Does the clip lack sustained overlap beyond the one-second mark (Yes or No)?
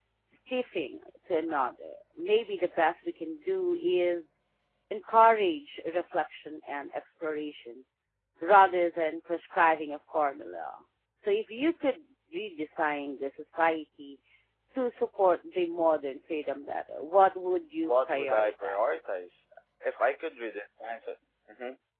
No